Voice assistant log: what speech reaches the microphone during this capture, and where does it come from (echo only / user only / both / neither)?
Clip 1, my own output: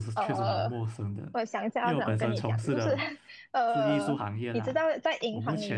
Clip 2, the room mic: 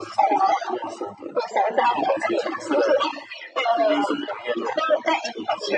echo only